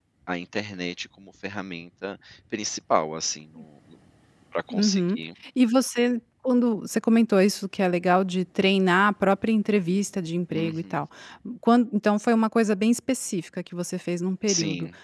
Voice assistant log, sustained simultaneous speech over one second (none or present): none